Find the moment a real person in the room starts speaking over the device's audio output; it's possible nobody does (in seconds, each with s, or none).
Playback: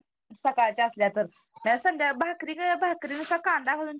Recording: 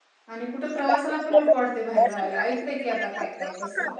0.3 s